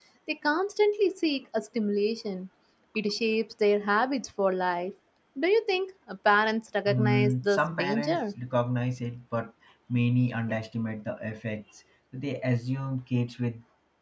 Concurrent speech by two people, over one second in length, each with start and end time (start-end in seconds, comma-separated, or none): 6.9-8.3